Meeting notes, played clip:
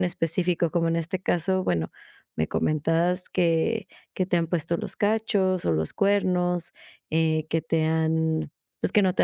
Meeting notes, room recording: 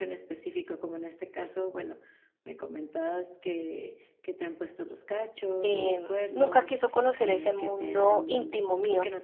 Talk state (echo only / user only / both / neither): both